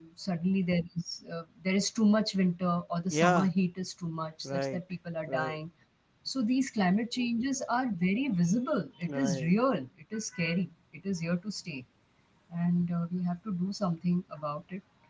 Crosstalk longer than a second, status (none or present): none